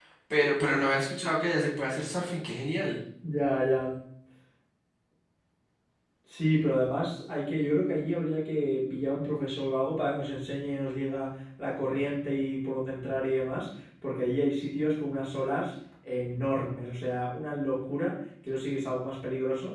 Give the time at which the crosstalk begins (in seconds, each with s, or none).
none